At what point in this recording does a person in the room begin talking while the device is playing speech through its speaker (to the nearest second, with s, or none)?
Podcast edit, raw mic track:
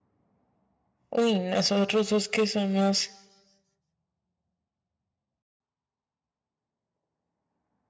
1 s